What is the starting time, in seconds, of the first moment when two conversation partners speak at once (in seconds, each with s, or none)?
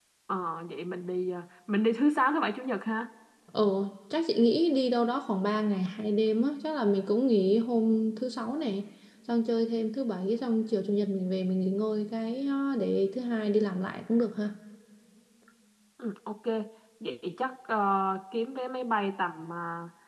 none